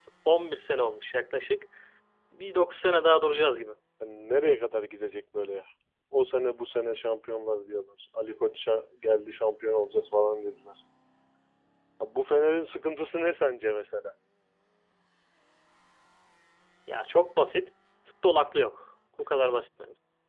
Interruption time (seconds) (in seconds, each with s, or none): none